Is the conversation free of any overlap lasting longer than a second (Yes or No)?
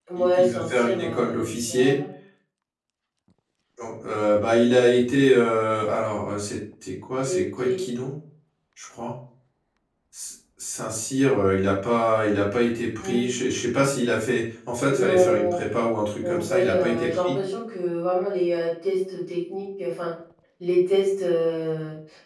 No